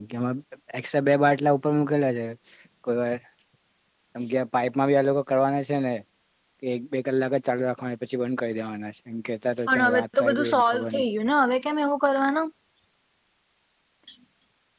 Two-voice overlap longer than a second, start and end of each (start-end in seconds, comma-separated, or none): 9.7-11.0